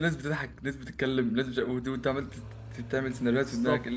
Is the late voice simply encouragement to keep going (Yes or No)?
No